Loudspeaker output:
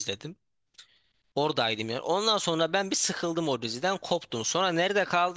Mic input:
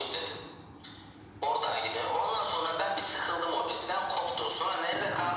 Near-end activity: none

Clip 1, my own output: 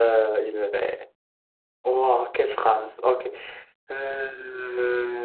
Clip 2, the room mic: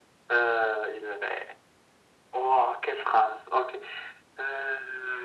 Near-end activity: none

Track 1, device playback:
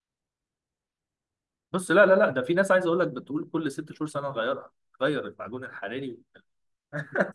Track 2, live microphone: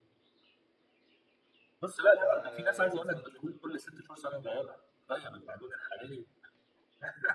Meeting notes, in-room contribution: present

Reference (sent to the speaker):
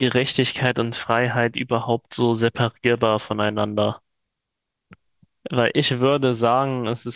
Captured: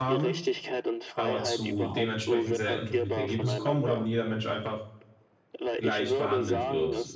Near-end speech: present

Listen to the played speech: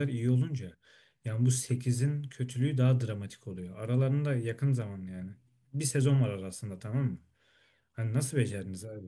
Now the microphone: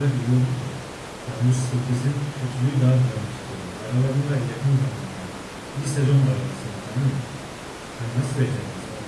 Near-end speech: none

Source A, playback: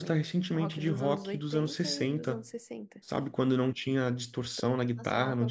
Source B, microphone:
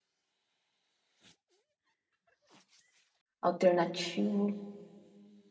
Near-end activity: present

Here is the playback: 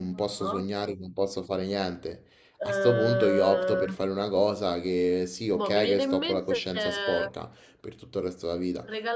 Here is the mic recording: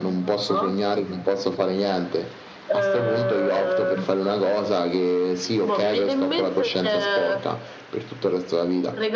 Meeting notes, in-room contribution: none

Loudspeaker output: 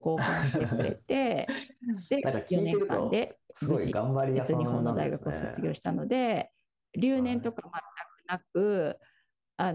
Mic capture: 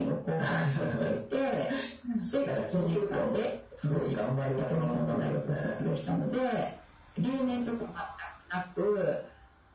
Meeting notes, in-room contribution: none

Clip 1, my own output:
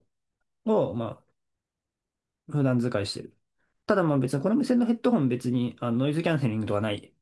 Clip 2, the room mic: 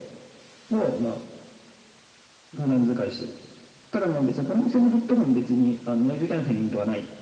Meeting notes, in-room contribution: none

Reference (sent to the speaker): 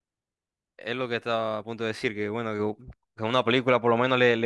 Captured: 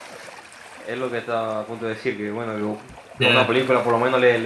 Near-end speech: present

